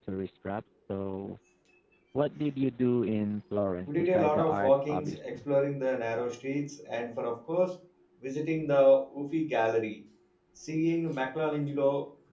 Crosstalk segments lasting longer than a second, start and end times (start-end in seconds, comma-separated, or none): 3.9-5.3